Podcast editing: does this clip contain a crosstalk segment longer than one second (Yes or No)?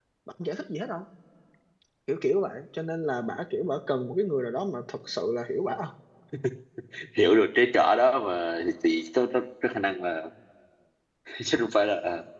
No